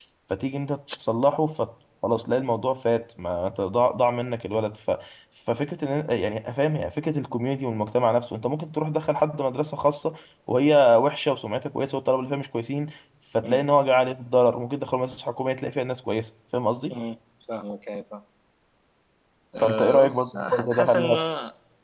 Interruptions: present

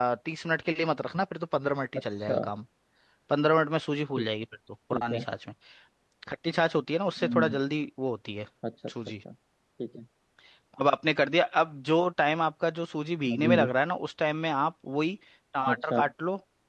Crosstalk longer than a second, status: none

